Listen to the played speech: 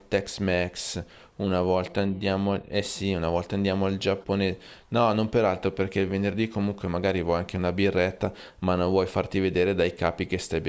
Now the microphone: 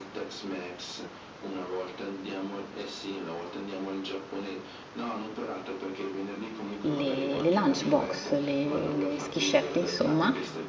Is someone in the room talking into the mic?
Yes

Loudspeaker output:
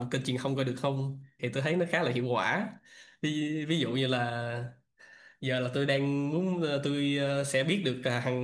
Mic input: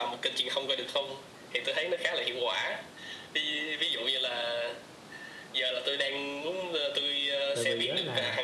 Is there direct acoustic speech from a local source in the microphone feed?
Yes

